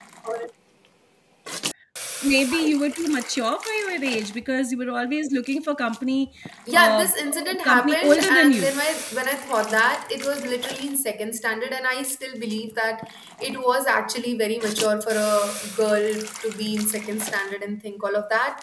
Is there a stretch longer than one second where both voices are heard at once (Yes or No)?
Yes